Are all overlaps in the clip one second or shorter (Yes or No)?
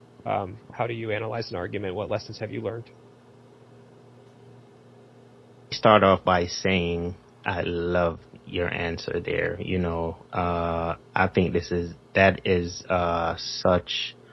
Yes